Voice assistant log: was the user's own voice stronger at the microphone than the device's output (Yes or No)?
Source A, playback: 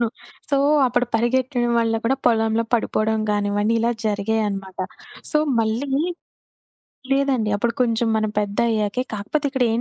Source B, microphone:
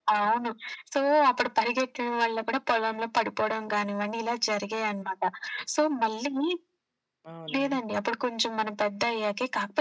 No